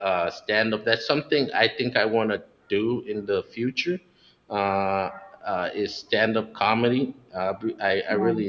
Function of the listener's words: listening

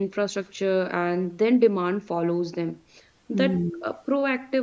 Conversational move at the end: listening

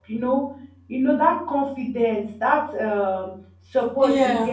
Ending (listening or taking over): listening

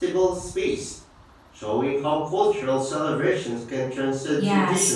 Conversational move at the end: taking over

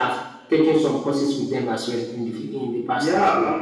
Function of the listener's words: taking over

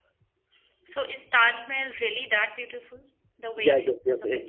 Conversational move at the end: taking over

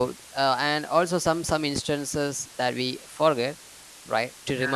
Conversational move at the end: listening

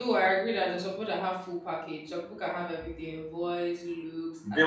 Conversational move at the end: taking over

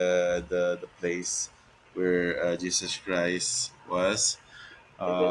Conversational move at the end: listening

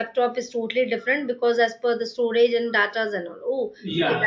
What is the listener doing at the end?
taking over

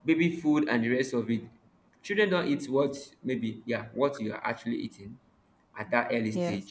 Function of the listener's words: listening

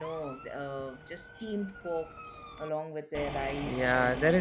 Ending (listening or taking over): taking over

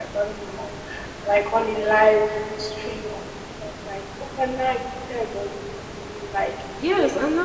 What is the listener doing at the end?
taking over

